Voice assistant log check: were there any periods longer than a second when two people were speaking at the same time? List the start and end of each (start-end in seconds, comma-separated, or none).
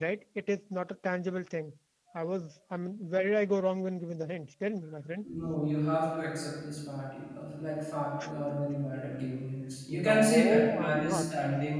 9.9-11.2